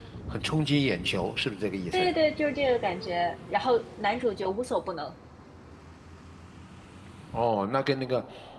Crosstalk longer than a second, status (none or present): none